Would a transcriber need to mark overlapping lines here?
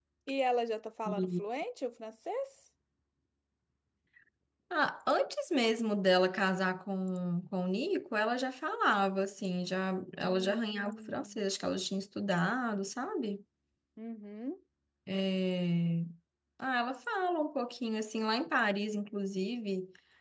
Yes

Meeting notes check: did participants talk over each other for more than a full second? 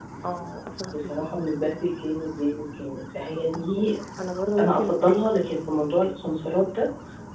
No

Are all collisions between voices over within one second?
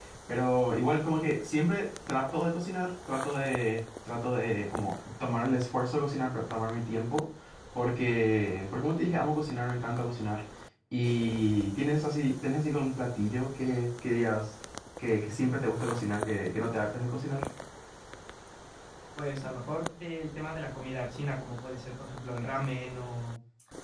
Yes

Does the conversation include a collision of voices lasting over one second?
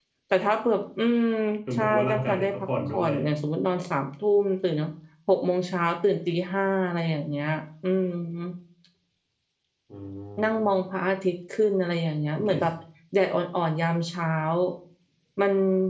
Yes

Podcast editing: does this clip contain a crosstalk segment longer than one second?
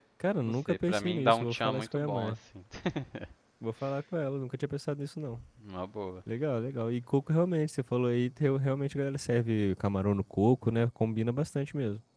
Yes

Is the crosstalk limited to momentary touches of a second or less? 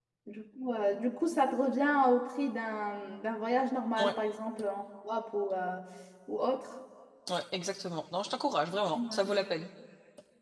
Yes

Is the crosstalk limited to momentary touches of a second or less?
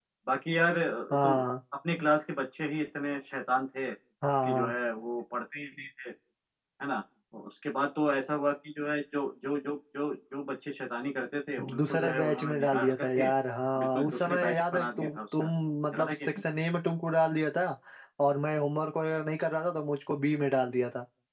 No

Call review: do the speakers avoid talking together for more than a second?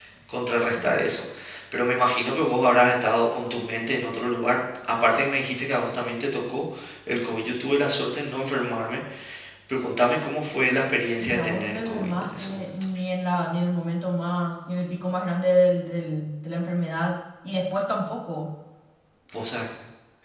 No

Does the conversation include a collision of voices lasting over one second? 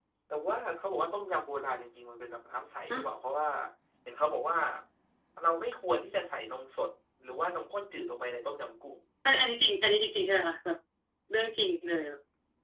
No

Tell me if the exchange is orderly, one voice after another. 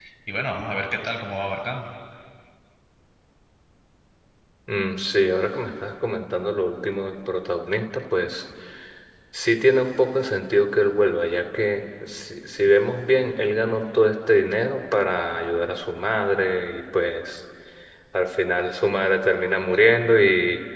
Yes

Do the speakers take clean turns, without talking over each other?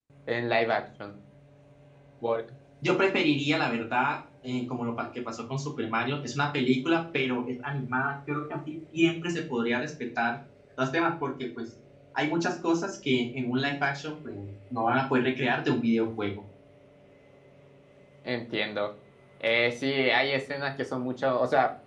Yes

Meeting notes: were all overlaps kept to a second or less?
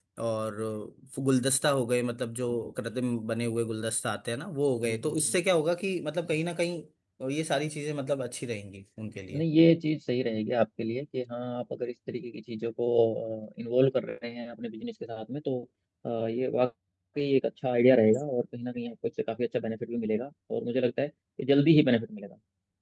Yes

